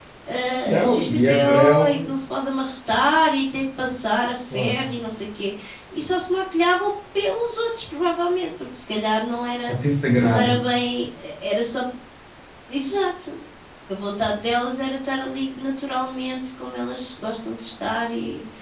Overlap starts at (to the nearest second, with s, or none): 1 s